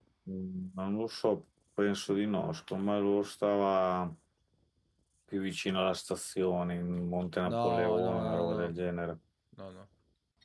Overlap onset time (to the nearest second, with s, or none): 7 s